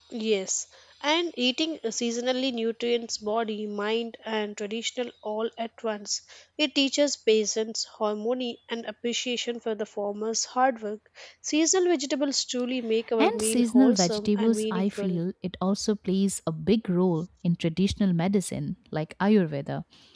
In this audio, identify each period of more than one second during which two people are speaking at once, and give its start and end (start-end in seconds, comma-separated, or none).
13.2-15.2